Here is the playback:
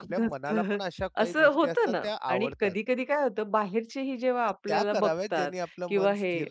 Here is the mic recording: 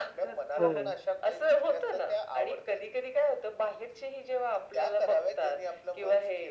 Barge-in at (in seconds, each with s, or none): 0.6 s